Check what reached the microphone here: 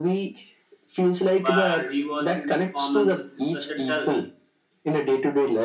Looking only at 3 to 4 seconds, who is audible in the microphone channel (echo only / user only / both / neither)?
both